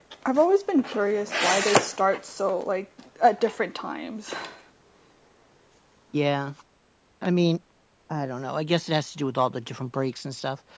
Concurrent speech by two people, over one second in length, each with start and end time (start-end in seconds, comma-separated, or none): none